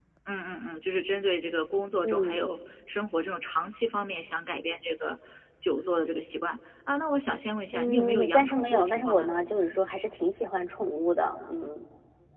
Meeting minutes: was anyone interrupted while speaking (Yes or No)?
Yes